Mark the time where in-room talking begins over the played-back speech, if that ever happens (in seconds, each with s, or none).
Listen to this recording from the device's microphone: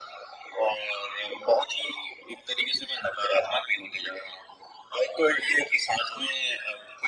none